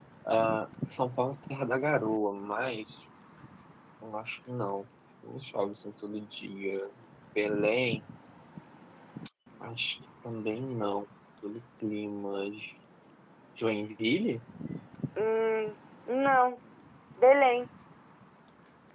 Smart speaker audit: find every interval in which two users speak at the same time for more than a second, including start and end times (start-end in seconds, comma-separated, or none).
none